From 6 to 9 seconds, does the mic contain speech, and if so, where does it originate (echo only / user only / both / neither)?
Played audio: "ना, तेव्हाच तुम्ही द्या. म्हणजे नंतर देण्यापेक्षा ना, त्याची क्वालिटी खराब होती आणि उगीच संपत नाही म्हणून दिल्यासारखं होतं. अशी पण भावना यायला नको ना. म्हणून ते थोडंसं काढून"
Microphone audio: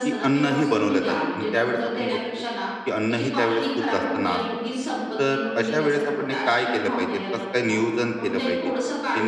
both